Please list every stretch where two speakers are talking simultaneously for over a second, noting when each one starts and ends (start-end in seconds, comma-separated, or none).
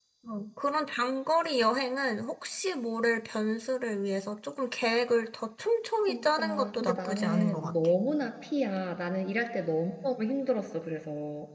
6.1-7.7